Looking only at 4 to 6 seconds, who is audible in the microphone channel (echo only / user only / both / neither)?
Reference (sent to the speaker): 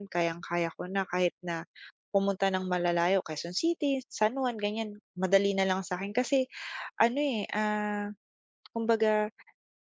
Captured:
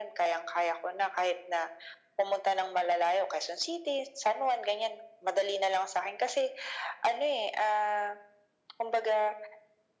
echo only